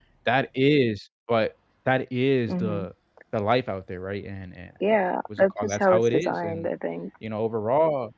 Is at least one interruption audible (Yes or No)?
Yes